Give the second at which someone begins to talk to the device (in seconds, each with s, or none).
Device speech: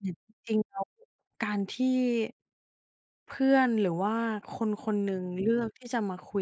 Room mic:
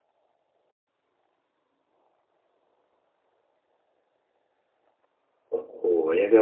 5.5 s